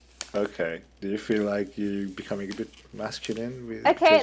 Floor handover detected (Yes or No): Yes